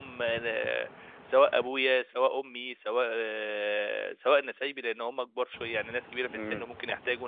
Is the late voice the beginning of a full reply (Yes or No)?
No